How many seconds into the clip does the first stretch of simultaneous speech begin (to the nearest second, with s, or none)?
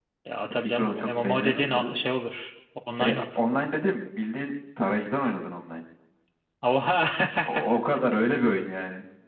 1 s